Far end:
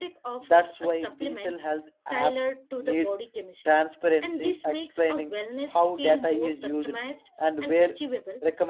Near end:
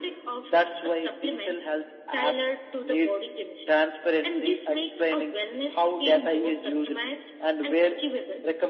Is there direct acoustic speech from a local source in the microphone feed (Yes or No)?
No